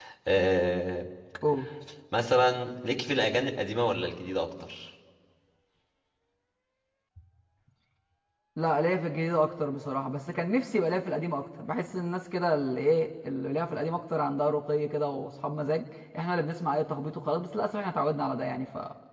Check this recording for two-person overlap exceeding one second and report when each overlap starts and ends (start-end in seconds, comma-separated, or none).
none